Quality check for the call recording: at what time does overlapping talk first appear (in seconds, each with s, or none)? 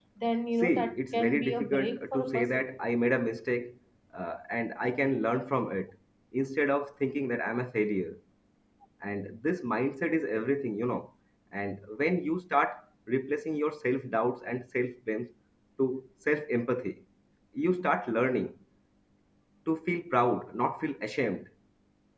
0.6 s